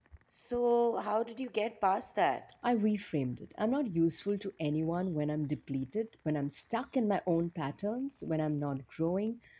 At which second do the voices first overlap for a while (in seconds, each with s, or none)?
none